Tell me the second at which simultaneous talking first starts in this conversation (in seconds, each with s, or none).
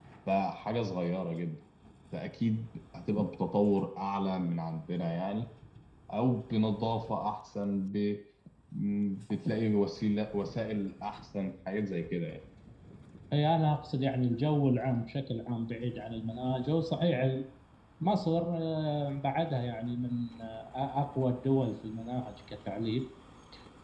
none